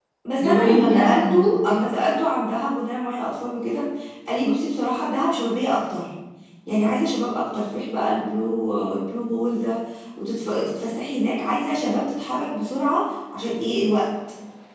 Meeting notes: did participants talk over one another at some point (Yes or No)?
Yes